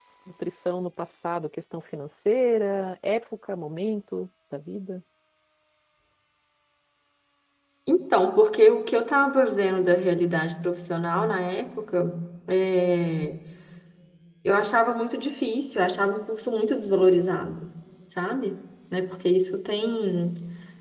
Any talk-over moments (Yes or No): No